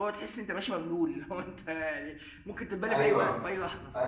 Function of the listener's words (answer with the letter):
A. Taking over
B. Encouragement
A